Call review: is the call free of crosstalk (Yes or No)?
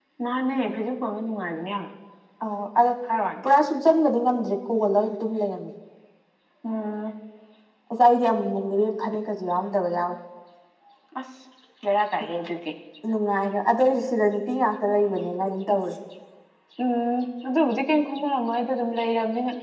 Yes